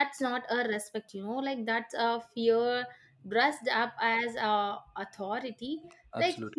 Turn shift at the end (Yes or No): No